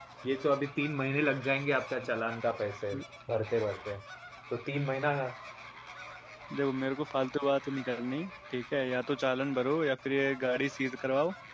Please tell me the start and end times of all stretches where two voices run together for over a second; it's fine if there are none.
none

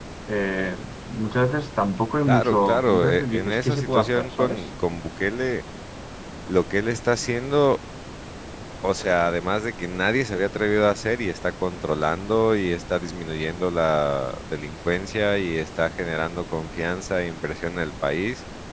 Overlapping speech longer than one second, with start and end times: 2.3-4.6

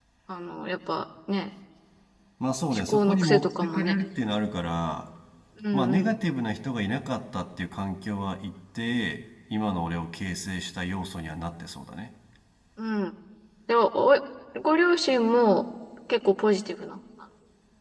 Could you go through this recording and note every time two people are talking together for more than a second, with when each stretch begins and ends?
2.8-4.0

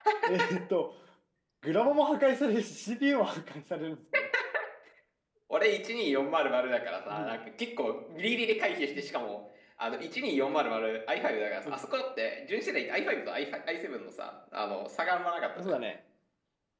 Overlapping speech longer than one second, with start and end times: none

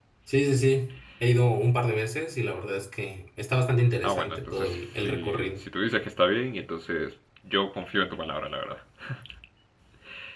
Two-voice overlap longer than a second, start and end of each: 4.0-5.5

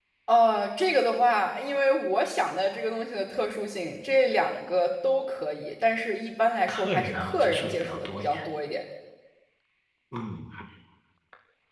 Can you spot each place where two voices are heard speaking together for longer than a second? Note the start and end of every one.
6.7-8.4

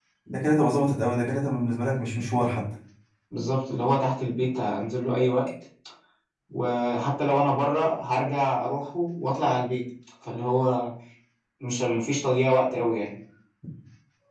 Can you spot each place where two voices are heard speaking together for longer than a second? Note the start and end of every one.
none

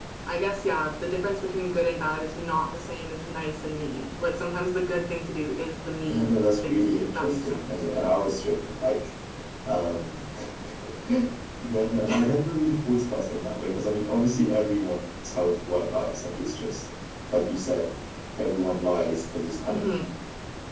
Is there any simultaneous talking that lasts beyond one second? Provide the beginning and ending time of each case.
6.0-7.7

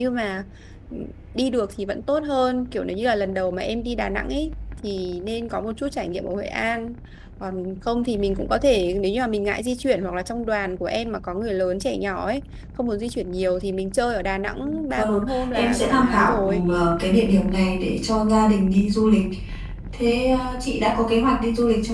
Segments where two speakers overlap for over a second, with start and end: 15.0-16.6

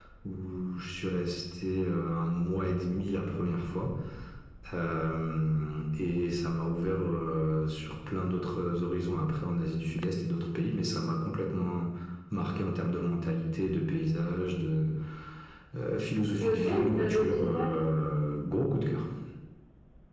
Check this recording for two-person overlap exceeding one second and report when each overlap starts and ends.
16.4-17.8

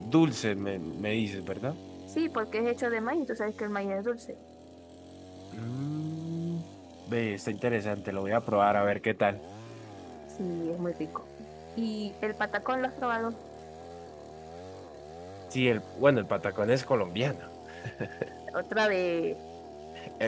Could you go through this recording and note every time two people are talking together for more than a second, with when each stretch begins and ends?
none

